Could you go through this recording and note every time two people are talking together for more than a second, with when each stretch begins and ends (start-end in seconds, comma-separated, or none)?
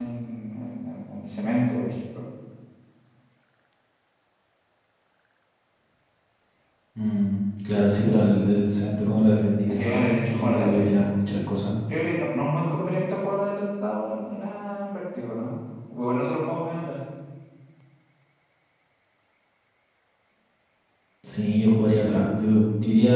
9.7-11.2